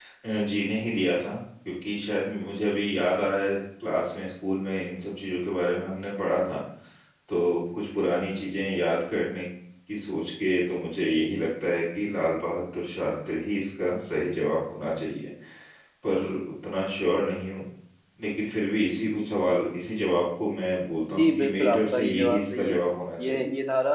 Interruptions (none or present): present